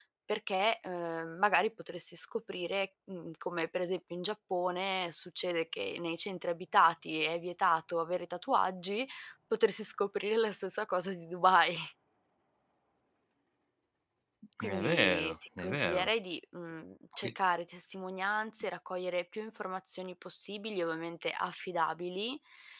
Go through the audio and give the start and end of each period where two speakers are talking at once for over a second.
14.6-16.1

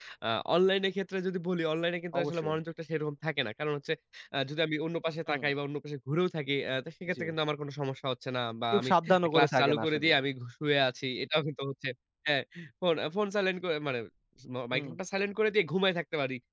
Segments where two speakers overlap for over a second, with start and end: 8.7-10.1

